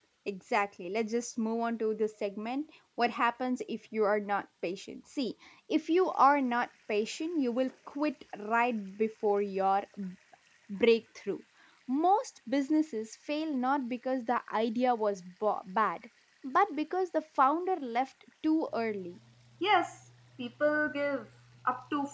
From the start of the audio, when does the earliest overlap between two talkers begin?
none

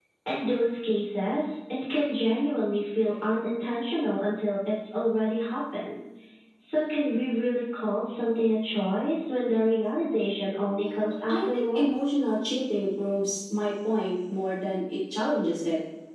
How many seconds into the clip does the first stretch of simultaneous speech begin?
10.7 s

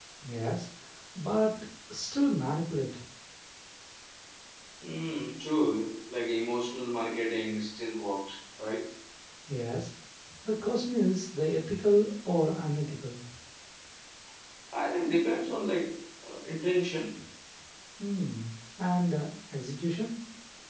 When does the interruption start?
none

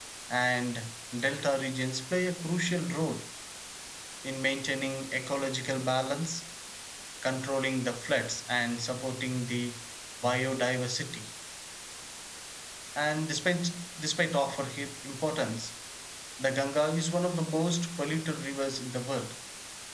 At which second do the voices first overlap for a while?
none

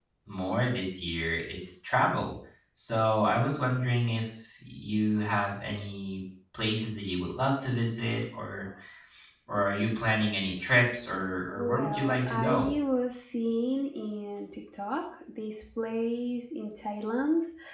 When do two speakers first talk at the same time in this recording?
11.5 s

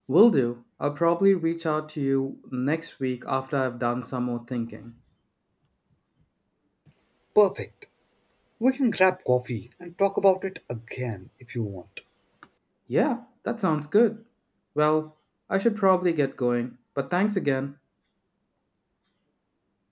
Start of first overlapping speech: none

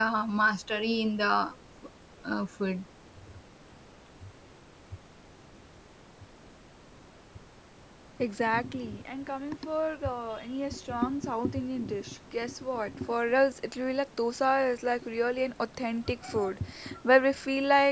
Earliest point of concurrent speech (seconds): none

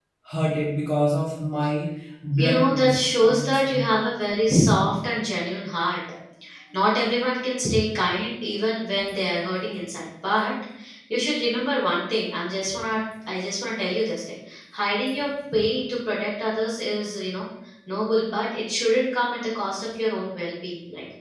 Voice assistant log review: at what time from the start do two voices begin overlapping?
2.4 s

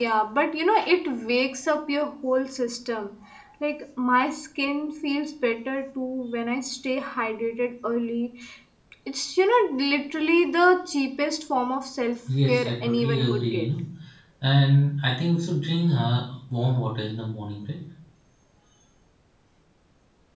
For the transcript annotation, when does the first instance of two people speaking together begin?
12.3 s

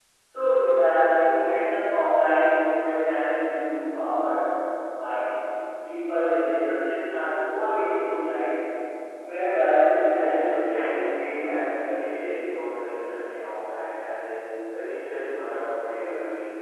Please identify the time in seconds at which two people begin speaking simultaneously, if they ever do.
9.8 s

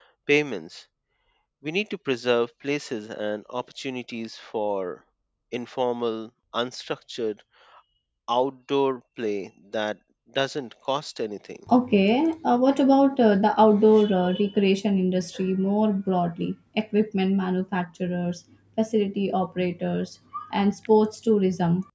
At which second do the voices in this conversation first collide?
none

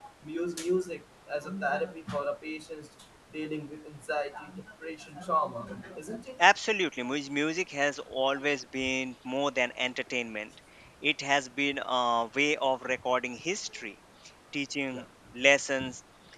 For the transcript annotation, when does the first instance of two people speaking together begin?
none

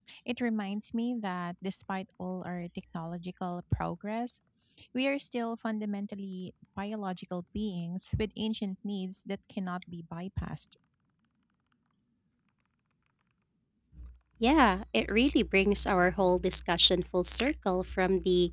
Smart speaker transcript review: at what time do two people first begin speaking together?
none

